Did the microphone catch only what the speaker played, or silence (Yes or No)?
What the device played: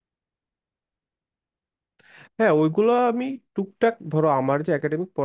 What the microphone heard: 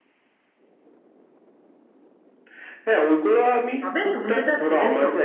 No